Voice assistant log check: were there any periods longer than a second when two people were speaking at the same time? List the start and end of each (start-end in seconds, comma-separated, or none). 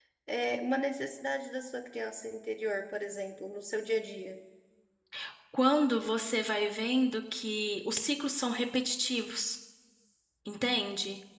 none